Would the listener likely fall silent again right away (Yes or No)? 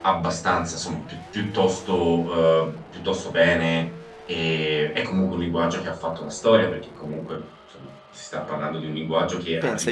No